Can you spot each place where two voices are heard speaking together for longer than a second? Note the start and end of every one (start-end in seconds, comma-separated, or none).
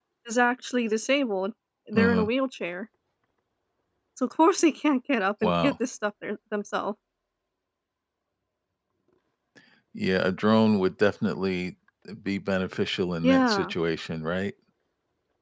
none